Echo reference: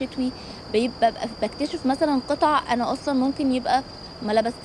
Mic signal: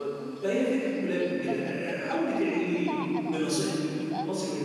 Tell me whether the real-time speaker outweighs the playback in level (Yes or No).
Yes